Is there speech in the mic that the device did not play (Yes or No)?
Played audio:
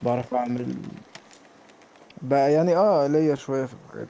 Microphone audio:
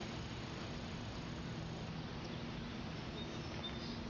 No